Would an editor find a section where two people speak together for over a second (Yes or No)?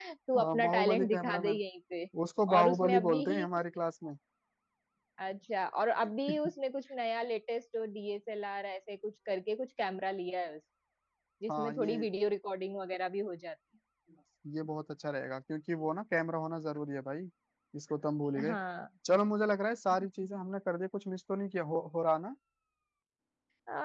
Yes